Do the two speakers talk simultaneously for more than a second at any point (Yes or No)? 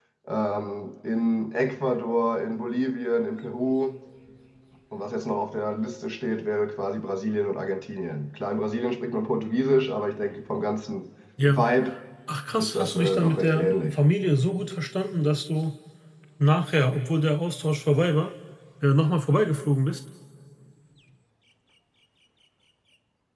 Yes